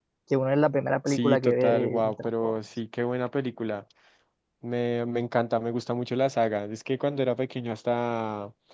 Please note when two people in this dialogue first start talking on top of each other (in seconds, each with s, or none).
1.1 s